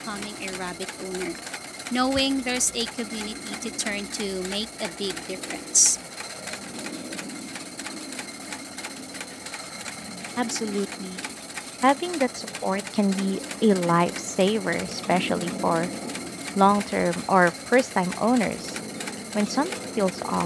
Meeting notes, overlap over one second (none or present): none